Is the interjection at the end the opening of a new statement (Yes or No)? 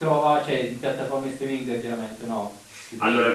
Yes